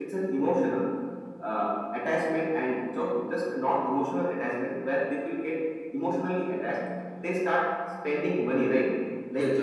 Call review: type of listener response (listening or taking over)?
listening